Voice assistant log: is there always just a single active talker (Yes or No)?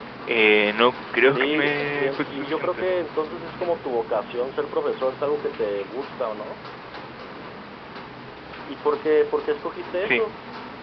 No